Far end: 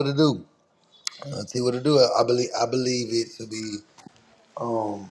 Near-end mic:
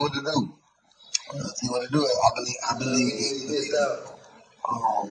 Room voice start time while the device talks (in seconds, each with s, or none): 2.7 s